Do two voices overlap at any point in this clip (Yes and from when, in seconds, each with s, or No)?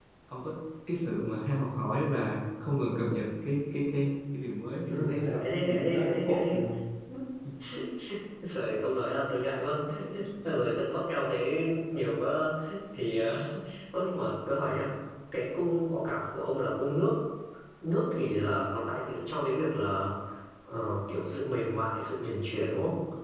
Yes, from 4.9 s